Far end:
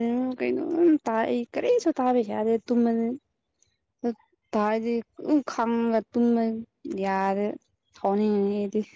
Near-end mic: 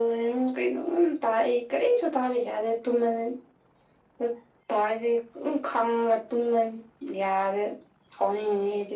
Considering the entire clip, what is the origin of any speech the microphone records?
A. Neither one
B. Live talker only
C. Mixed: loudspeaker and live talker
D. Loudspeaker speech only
D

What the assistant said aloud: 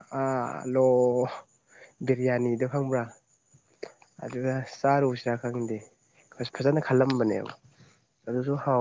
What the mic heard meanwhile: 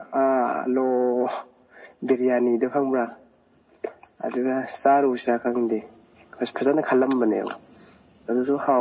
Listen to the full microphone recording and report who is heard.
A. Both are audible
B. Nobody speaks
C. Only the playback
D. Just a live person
C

